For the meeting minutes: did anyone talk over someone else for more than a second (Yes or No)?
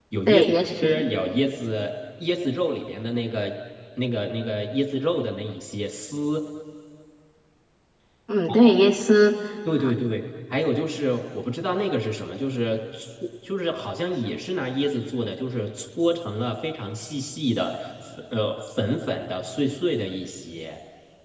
No